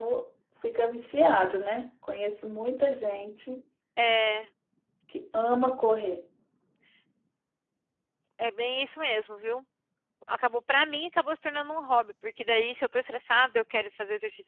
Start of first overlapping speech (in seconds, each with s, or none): none